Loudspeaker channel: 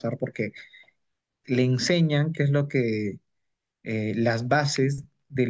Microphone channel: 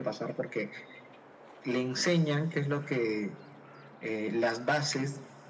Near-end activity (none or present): none